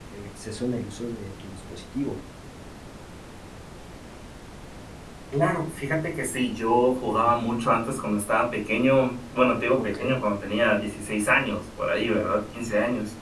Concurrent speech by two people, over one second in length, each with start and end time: none

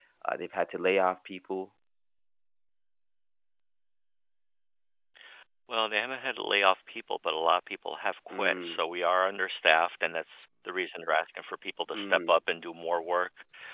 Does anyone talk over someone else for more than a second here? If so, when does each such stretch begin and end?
none

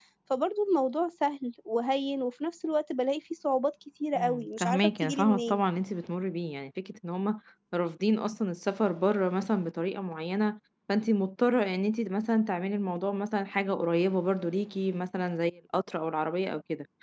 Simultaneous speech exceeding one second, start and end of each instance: 4.2-5.6

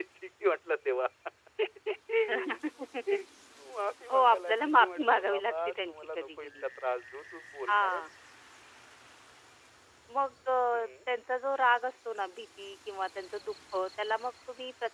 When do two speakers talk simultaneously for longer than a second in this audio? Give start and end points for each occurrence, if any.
4.1-6.7

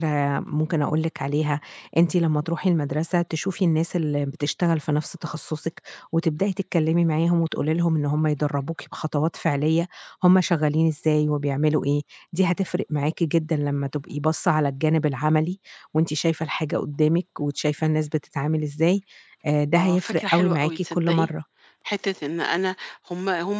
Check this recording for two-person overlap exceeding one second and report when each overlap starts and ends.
19.8-21.3

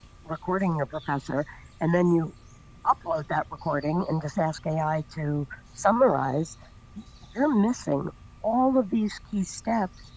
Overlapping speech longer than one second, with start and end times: none

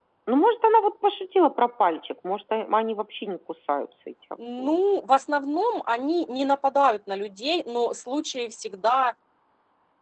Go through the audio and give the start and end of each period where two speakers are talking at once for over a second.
none

